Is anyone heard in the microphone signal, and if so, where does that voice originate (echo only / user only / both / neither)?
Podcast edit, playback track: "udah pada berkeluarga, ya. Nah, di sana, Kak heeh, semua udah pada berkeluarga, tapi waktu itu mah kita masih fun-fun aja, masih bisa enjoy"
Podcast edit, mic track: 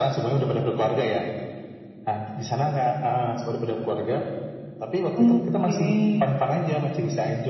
both